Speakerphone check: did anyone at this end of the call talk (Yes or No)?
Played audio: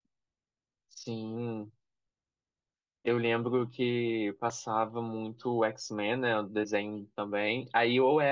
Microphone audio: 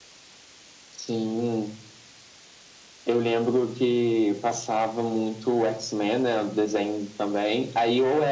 No